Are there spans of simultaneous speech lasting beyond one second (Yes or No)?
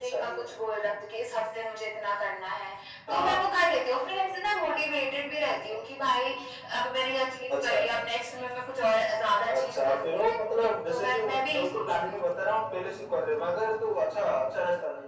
Yes